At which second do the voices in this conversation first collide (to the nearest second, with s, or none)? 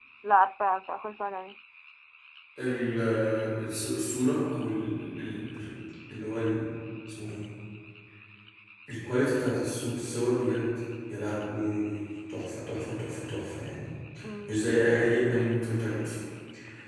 none